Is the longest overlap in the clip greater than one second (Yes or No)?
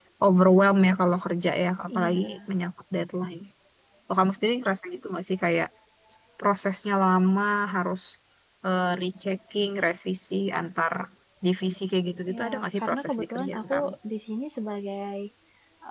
Yes